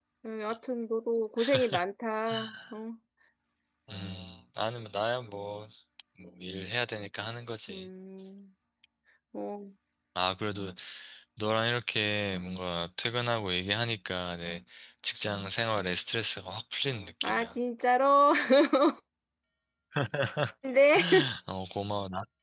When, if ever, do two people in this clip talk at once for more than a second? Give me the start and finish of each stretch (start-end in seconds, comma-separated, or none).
none